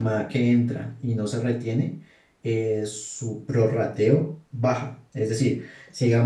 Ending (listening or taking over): taking over